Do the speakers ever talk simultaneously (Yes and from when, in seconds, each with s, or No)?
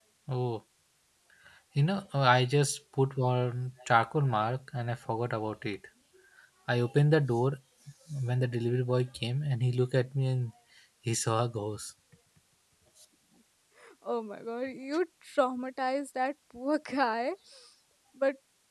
No